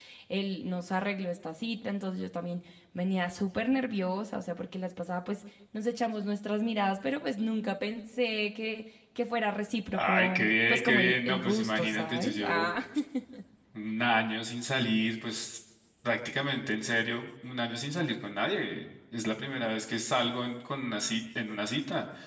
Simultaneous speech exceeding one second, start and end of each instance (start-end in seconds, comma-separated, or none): 9.9-12.7